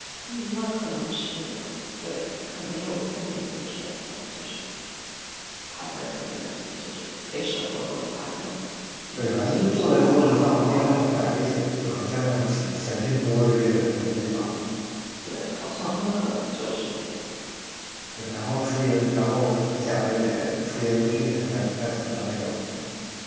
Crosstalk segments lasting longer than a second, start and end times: 9.2-11.3

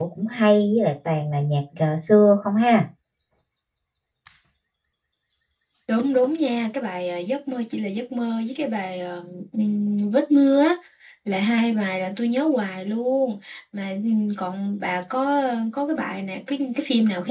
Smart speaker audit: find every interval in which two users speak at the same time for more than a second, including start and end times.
none

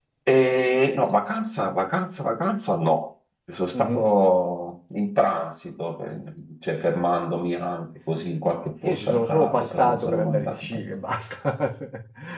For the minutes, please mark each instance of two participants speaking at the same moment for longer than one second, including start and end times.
8.8-11.0

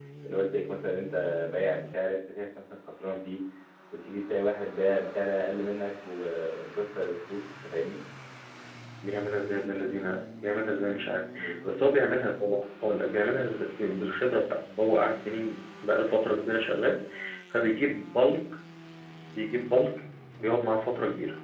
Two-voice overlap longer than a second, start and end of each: none

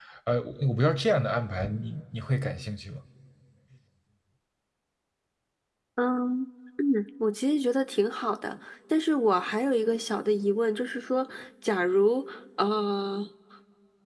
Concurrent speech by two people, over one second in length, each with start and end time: none

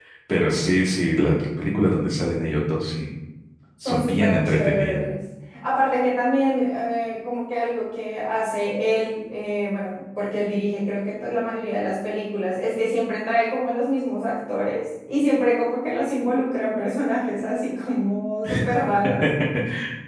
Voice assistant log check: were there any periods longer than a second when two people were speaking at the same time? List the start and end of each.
3.8-5.0

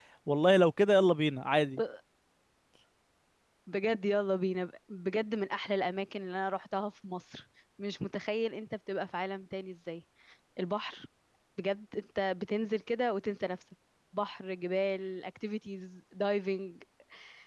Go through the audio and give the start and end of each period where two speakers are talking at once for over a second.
none

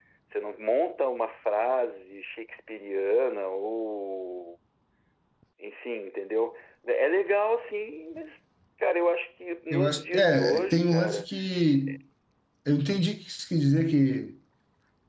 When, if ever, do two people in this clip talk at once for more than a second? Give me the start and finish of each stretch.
9.7-11.2

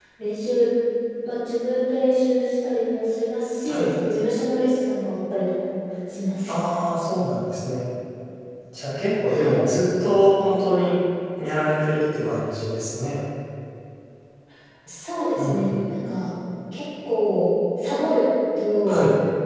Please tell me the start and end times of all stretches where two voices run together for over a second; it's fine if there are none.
none

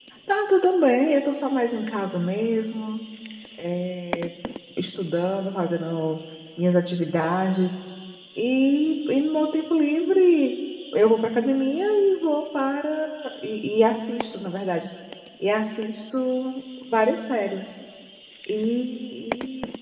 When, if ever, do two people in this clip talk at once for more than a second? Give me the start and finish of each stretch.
none

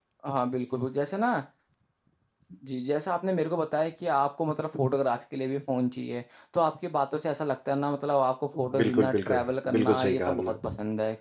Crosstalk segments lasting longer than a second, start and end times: 8.8-10.5

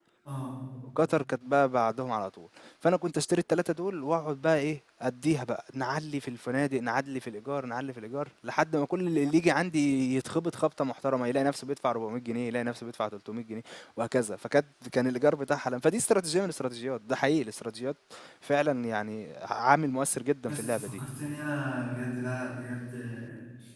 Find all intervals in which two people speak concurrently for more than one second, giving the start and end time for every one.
none

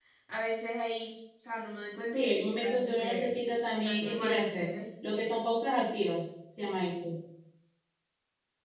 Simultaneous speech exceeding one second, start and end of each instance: 2.1-4.7

